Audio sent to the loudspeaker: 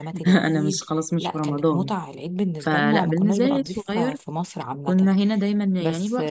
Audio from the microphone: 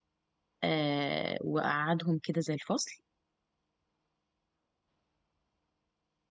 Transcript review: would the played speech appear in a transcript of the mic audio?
No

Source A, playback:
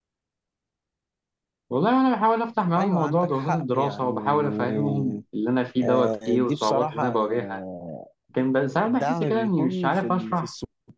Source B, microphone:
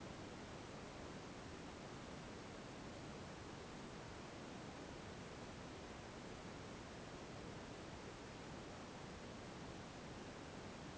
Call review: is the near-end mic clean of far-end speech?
Yes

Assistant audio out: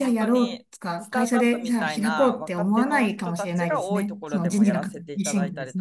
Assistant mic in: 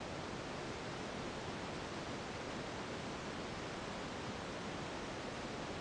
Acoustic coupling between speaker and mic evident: No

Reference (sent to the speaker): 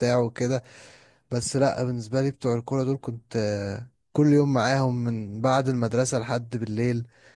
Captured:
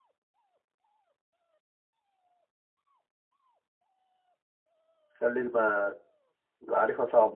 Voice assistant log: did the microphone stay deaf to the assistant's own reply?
Yes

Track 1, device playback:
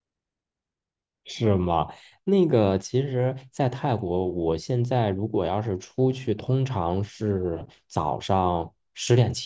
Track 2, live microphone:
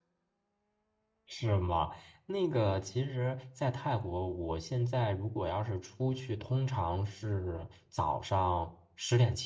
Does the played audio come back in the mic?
Yes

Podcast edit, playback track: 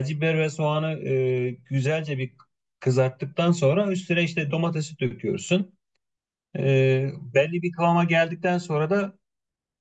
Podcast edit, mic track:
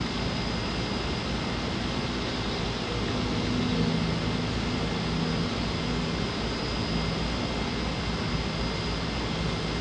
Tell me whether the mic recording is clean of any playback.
Yes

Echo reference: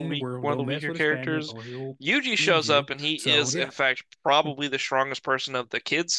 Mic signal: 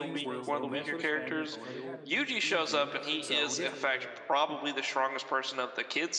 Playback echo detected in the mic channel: Yes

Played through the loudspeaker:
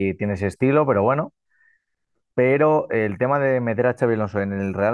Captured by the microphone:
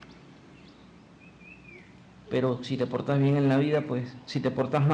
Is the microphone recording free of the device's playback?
Yes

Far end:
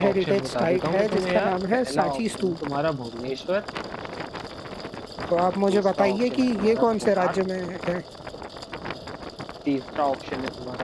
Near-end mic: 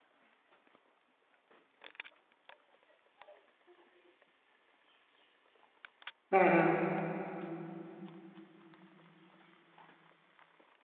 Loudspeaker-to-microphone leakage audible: No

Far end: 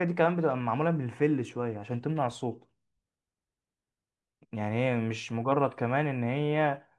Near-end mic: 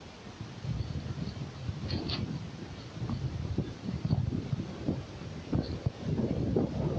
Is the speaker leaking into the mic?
No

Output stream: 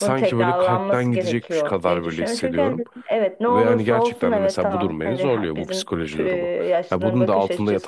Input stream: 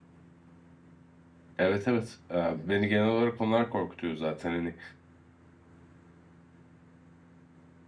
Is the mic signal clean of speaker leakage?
Yes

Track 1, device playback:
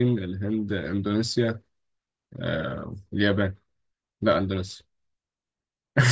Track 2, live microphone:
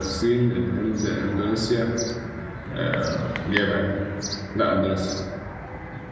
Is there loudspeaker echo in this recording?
Yes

